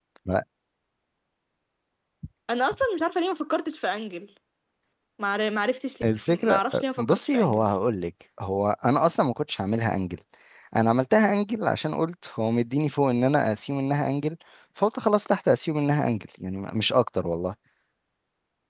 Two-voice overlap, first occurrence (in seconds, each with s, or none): 6.3 s